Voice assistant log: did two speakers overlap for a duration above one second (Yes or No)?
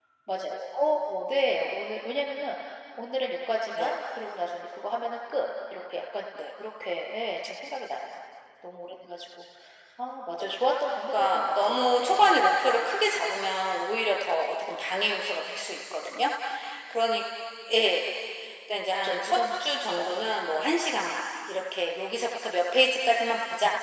Yes